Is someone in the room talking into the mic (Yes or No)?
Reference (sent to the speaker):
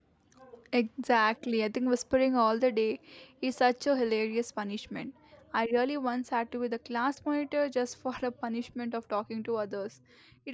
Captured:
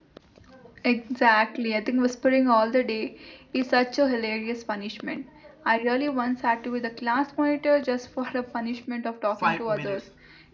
Yes